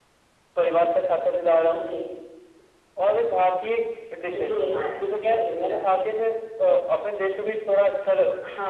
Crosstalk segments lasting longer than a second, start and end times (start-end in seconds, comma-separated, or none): none